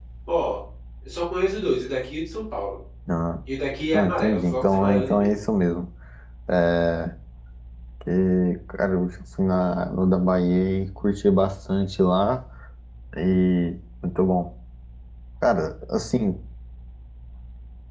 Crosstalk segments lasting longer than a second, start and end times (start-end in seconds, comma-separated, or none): 3.9-5.4